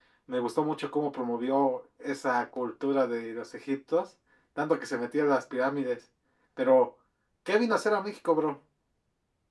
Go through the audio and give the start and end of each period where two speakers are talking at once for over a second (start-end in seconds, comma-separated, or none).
none